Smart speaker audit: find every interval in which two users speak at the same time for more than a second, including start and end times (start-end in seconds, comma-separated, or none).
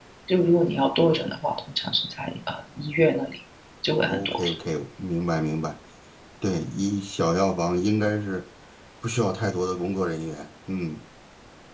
none